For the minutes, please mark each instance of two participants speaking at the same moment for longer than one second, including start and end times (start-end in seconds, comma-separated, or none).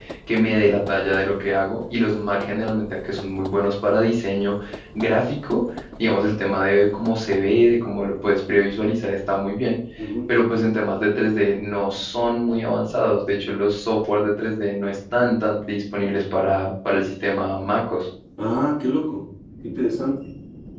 none